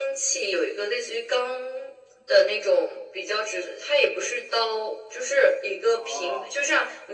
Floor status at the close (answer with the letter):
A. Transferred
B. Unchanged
B